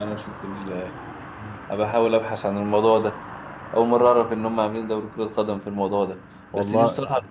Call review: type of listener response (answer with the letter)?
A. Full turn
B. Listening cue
B